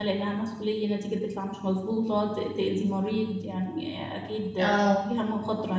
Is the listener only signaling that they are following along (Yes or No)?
Yes